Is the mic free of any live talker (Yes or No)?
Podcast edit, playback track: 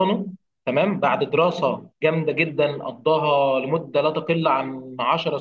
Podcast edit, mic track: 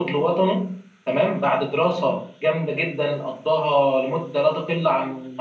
Yes